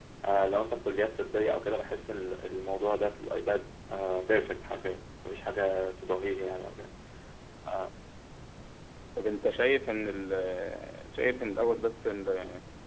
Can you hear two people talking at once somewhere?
No

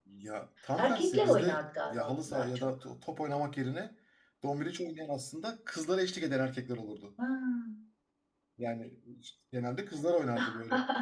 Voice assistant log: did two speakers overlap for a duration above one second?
Yes, from 0.8 s

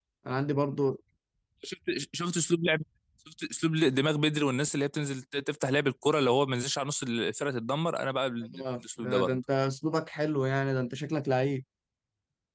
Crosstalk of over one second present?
No

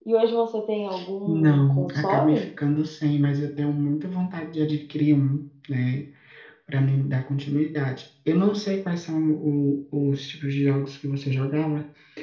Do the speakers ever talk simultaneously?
Yes, from 1.3 s

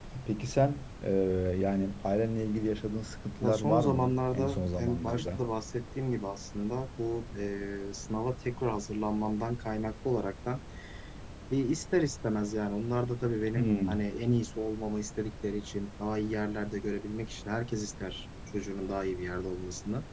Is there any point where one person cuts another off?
Yes, from 3.4 s

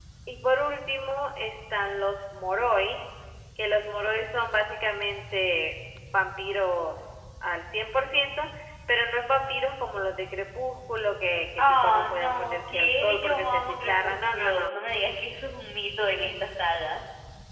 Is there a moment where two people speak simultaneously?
Yes, from 11.6 s

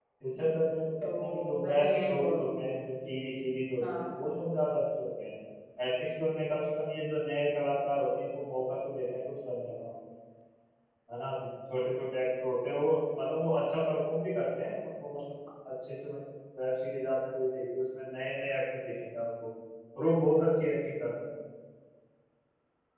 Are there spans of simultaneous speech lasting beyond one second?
Yes, from 1.2 s

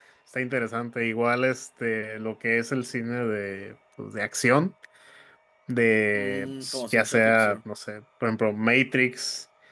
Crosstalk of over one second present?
Yes, from 6.1 s

